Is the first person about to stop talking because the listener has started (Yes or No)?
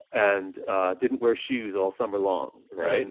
No